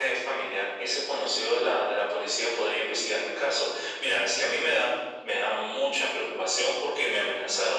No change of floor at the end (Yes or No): Yes